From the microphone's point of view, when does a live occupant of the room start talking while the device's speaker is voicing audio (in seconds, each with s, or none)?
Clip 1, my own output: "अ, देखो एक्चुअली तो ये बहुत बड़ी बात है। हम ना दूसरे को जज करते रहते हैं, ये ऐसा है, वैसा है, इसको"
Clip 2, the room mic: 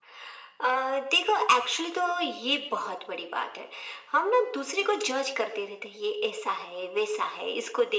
none